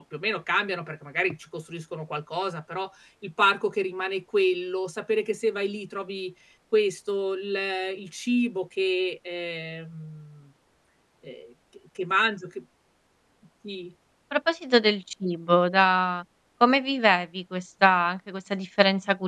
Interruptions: none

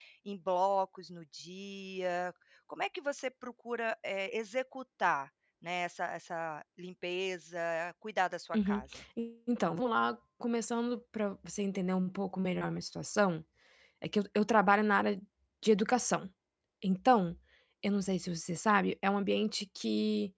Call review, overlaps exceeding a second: none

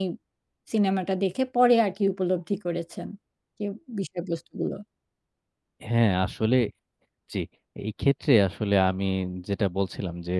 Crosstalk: none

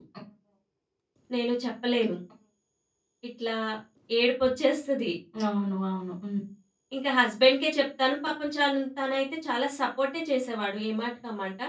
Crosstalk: none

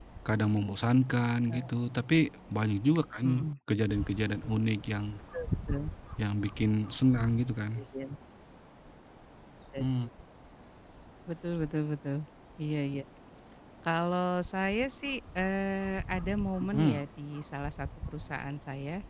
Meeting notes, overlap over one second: none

